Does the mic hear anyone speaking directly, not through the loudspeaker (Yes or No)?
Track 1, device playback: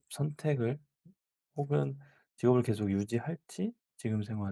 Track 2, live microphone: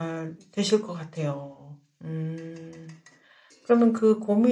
Yes